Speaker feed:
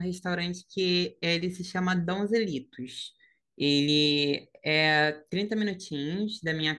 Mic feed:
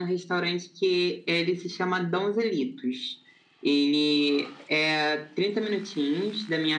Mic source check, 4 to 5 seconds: echo only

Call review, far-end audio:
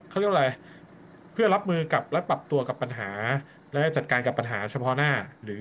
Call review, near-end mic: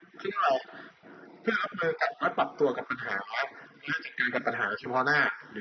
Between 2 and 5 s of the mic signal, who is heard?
echo only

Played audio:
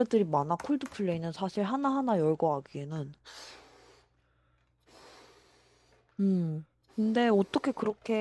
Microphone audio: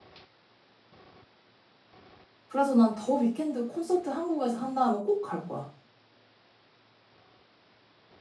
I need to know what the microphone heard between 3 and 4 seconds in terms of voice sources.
user only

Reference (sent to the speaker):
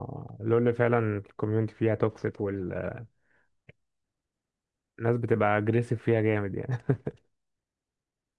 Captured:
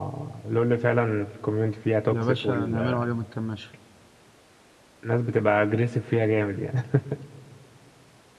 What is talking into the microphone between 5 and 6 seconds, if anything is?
echo only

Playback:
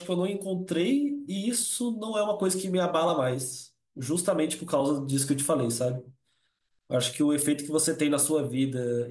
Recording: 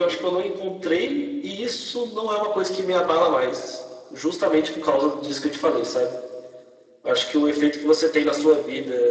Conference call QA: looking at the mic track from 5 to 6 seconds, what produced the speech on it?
echo only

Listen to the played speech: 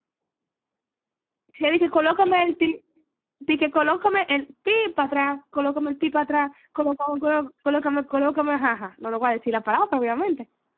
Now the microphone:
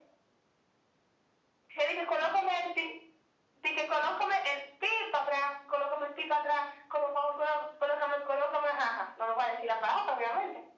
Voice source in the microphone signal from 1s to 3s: echo only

